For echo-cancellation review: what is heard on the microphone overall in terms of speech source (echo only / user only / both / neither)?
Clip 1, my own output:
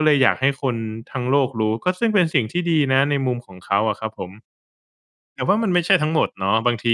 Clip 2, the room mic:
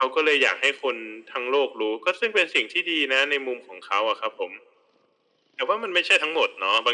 echo only